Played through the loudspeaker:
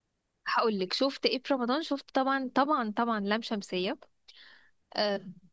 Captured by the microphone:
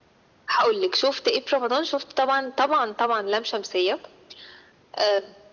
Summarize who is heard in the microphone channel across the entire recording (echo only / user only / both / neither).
echo only